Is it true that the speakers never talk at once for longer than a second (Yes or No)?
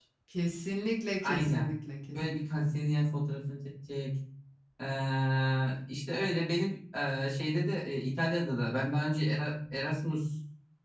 Yes